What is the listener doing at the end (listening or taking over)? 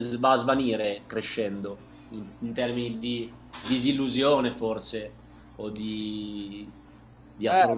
taking over